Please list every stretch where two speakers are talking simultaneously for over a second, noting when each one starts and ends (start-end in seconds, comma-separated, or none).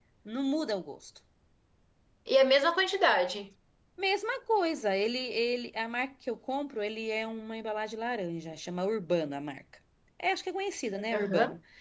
none